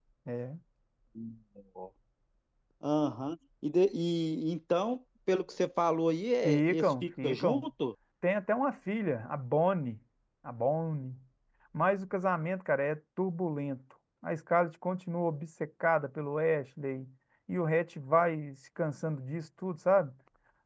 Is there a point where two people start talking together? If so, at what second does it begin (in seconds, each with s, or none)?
6.4 s